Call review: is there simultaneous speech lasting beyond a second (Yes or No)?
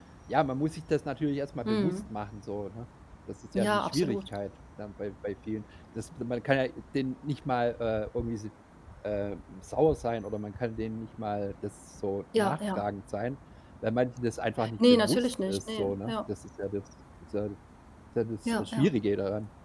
Yes